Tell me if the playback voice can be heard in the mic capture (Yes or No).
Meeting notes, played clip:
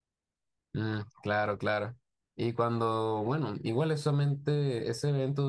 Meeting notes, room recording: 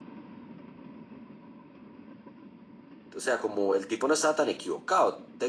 No